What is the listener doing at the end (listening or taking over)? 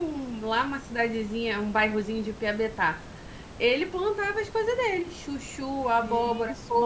taking over